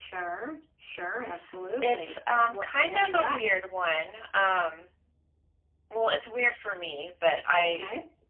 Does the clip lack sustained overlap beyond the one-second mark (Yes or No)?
No